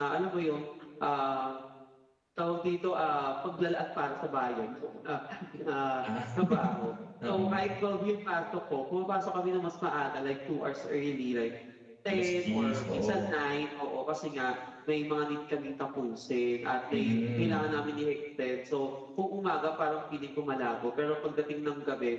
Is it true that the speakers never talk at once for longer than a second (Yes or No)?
No